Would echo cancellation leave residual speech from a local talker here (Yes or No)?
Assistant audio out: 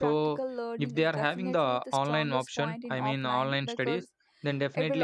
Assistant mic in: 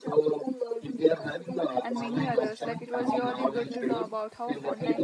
Yes